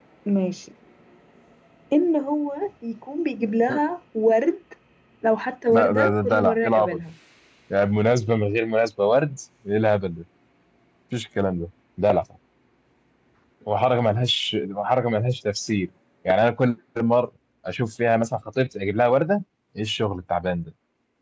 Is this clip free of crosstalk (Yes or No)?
No